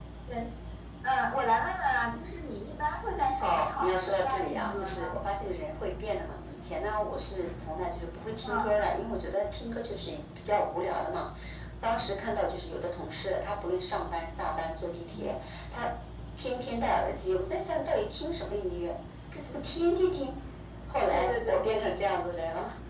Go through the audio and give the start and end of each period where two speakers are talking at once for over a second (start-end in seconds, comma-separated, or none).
3.4-5.2